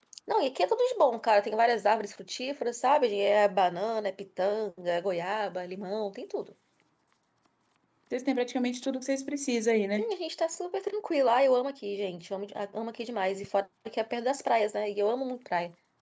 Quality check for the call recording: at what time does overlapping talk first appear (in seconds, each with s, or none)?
none